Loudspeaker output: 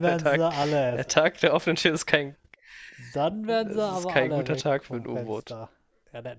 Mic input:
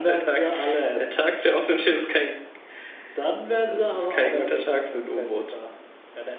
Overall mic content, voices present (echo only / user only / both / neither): echo only